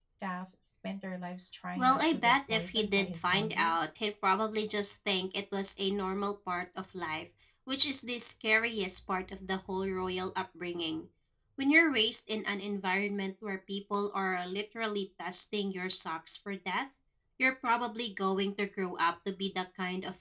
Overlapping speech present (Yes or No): Yes